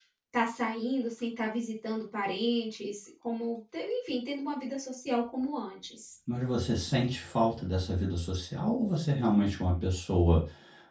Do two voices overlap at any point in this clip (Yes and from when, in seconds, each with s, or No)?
No